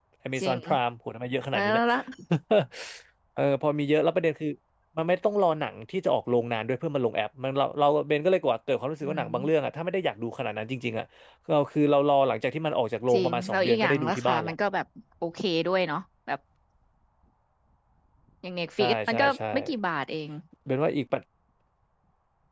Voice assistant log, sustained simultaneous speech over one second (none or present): present